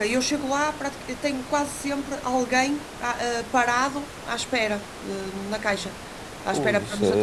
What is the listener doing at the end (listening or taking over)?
taking over